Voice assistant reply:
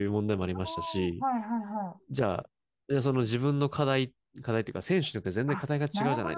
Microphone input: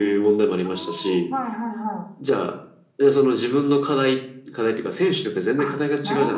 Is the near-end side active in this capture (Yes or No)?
No